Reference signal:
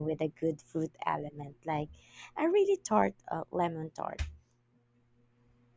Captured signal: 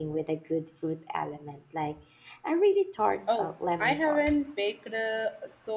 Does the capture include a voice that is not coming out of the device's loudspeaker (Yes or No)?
Yes